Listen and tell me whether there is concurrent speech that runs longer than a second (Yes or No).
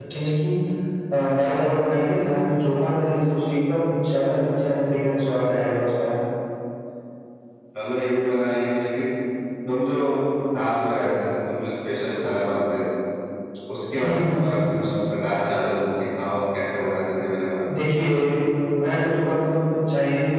No